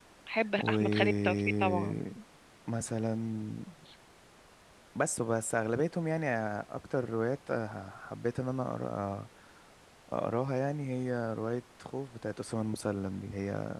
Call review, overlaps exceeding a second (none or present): present